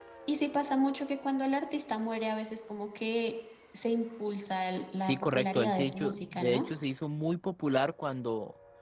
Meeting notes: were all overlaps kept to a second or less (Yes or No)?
No